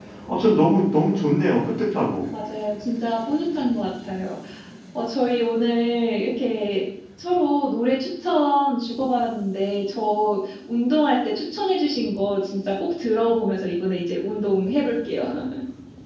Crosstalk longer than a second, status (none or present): none